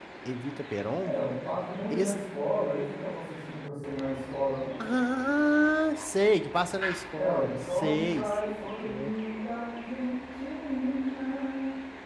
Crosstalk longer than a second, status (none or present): present